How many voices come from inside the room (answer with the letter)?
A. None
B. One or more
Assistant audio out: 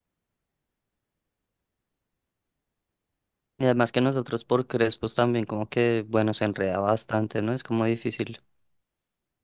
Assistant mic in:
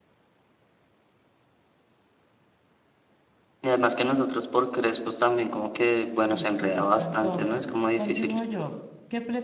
B